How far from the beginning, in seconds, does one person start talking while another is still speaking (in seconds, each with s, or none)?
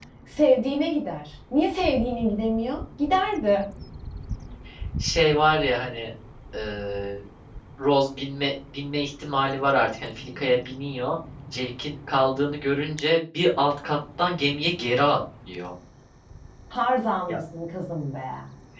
none